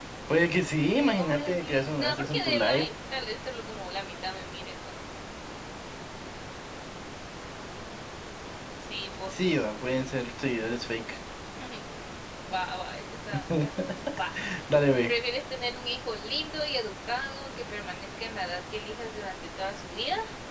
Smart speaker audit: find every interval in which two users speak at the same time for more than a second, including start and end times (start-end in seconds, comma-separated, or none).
0.9-2.8